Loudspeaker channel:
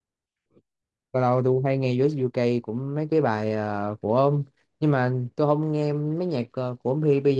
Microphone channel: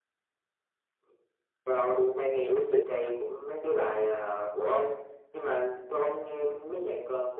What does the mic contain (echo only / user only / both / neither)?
both